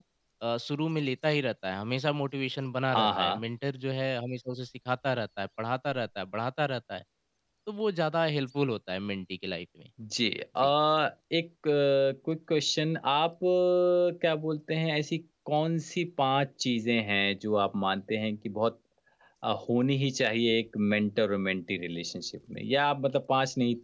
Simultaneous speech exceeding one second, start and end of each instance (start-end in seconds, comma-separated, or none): none